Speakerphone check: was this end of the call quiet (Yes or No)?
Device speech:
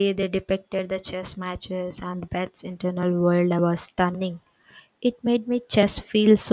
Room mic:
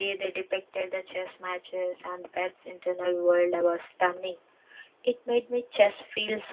Yes